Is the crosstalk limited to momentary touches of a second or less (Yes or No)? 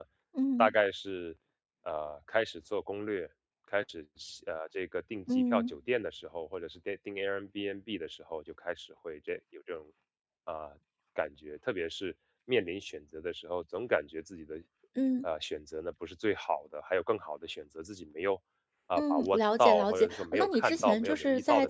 No